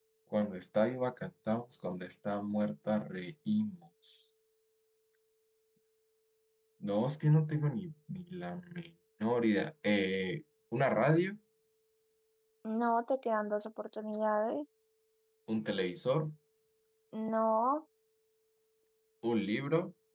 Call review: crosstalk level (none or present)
none